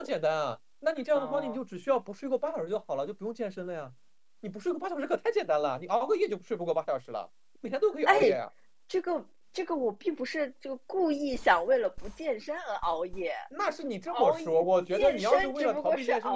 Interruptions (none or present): present